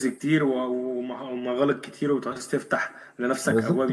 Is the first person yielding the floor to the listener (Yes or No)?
Yes